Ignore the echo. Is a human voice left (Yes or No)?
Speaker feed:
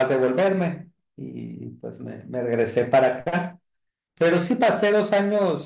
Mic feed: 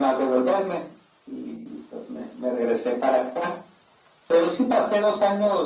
No